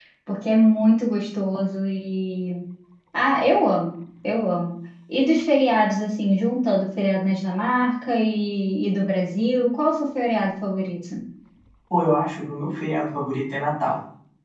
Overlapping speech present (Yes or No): No